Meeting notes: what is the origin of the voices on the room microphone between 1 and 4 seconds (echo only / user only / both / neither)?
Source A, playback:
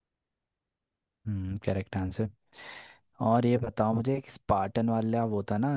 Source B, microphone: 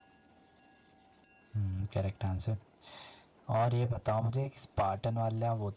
echo only